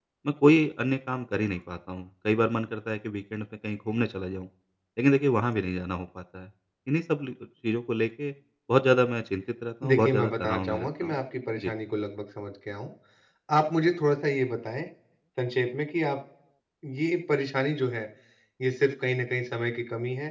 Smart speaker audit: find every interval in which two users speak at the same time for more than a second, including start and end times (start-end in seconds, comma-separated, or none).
9.8-11.2